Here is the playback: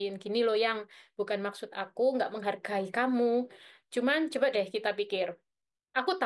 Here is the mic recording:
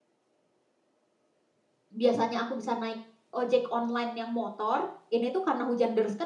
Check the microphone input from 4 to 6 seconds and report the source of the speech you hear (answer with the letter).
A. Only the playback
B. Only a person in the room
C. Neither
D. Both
B